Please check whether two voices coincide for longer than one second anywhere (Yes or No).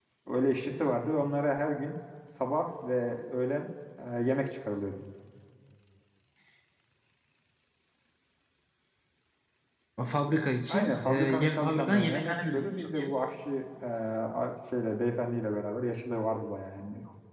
Yes